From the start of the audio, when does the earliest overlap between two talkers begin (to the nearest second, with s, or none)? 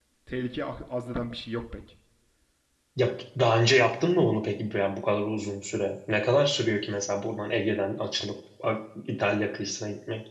none